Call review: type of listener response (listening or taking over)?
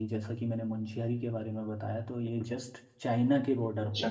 taking over